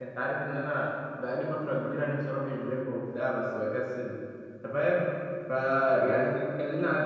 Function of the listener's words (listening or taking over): listening